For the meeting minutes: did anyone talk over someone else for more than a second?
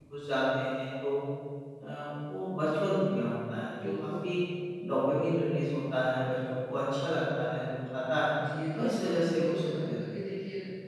Yes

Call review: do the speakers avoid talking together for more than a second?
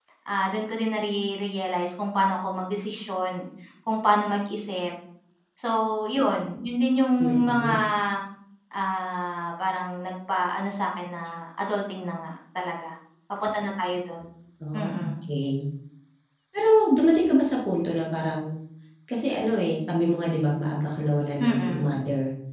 Yes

